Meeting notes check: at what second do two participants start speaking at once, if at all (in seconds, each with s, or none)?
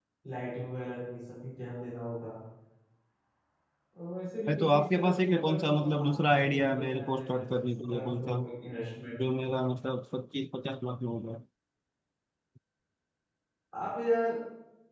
4.5 s